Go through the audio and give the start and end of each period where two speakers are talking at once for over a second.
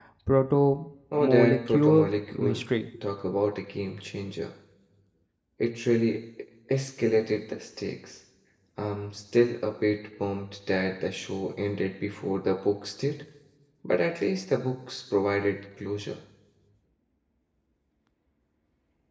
1.1-2.6

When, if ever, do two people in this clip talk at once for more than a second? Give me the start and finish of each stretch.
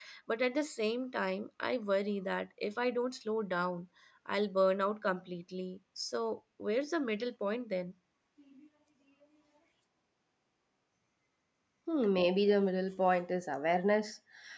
none

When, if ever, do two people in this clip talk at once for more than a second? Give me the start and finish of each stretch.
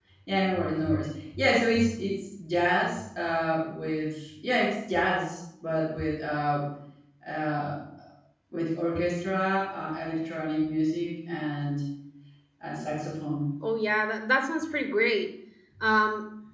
none

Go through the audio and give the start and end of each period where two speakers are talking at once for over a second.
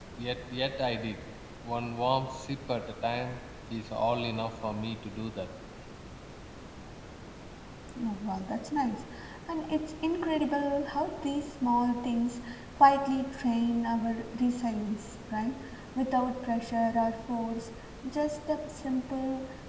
none

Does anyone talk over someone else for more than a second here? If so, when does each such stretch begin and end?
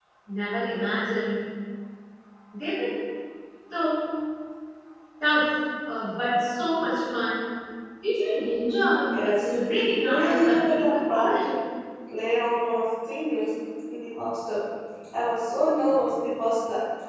10.0-11.5

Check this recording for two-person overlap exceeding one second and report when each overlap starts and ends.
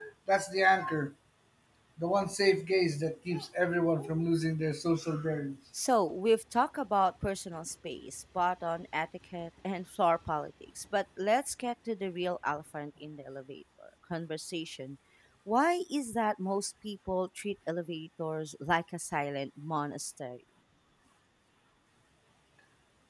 none

